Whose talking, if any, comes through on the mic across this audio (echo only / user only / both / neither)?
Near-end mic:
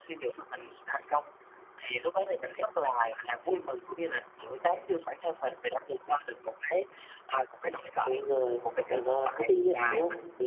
both